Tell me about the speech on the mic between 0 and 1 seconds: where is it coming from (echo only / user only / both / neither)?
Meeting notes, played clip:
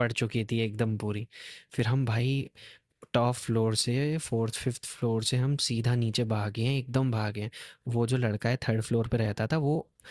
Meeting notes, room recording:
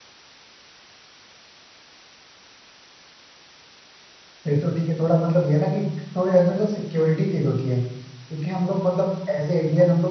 neither